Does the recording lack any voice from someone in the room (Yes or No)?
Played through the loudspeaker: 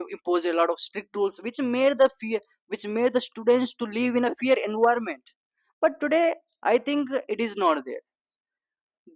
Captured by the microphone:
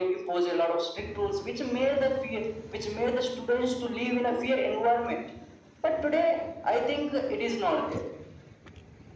Yes